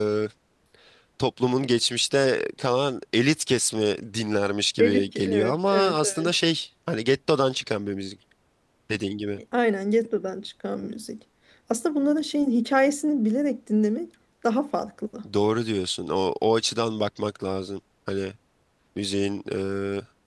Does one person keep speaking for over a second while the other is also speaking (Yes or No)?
Yes